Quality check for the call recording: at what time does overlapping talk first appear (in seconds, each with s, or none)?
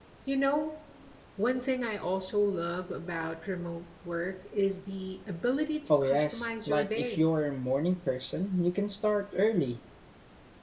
5.9 s